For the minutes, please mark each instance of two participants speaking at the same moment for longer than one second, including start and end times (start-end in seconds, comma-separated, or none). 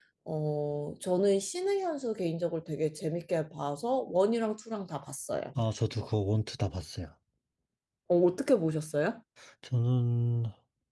none